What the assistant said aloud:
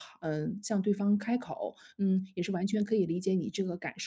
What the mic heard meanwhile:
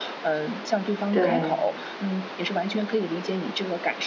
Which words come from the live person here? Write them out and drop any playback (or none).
对。